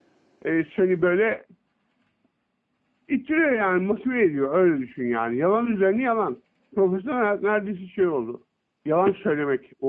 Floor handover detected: No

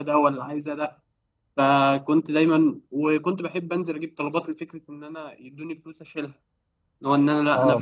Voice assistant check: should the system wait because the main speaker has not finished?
No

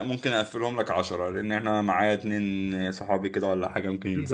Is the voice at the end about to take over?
Yes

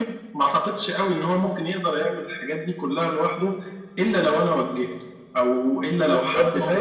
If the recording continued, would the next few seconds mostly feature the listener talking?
Yes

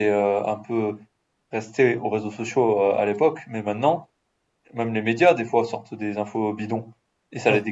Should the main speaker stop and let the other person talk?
No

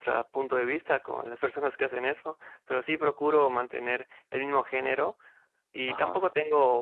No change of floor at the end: Yes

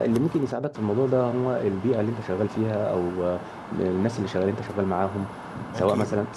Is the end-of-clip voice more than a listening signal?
No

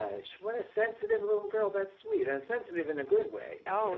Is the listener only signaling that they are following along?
No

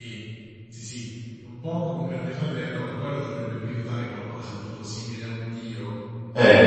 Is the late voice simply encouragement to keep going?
No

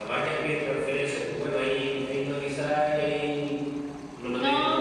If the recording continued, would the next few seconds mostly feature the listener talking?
No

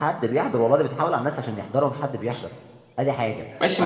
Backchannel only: No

